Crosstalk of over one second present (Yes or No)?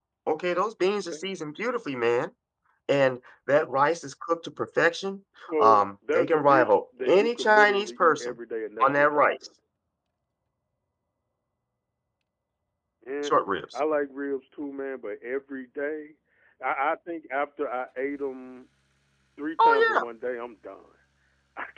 Yes